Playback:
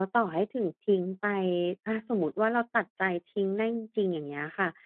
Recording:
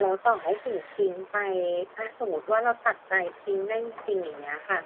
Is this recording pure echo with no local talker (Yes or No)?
Yes